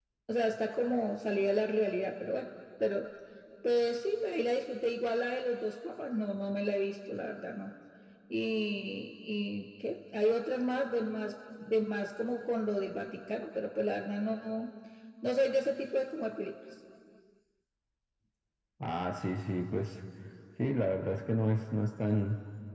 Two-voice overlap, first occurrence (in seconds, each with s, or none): none